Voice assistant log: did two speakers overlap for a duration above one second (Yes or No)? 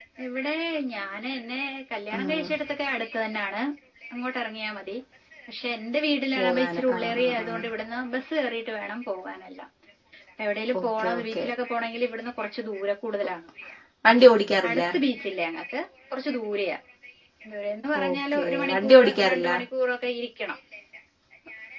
Yes